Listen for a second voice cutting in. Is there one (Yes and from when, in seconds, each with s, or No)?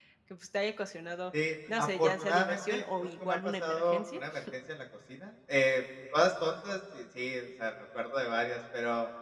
Yes, from 1.3 s